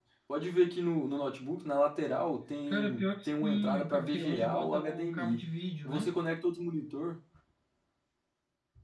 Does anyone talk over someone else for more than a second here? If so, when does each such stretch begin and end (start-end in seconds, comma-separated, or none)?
2.7-5.4